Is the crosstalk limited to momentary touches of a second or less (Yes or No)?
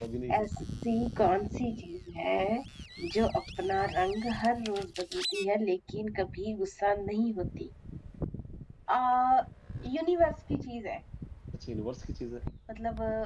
Yes